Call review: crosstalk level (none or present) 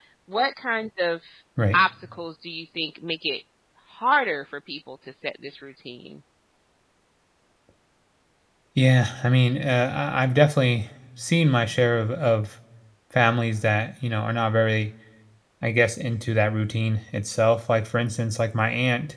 none